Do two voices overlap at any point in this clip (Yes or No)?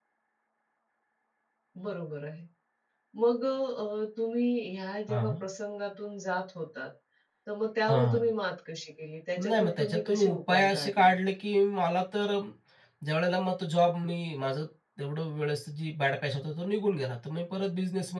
Yes